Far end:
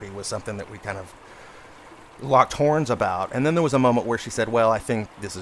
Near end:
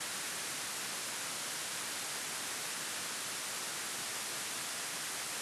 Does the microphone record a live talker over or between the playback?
No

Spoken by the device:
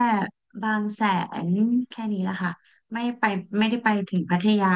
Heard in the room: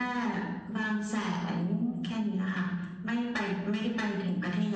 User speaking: No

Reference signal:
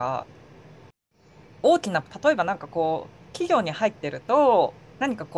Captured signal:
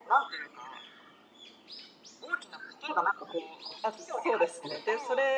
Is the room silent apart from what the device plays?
No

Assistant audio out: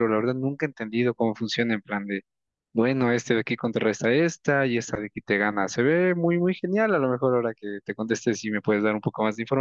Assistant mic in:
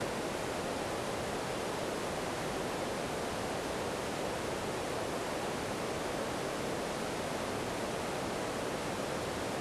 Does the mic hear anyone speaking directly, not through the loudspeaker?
No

